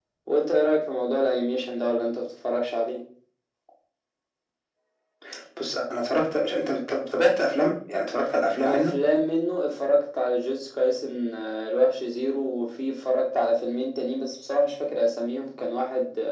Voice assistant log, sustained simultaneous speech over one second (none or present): none